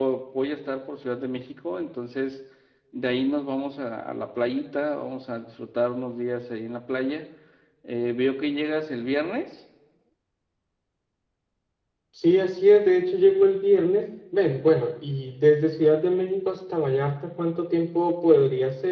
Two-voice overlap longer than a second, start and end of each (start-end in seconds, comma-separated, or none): none